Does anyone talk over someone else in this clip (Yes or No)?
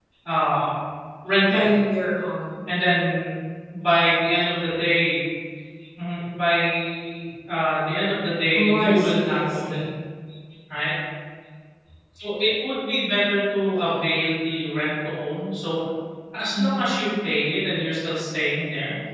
Yes